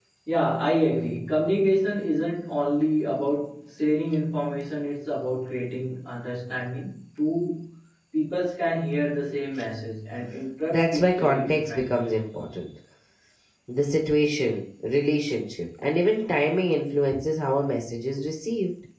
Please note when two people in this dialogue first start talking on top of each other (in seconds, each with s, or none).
10.7 s